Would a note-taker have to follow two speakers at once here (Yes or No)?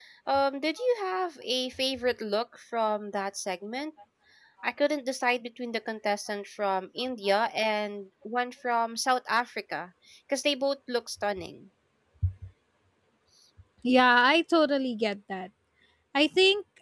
No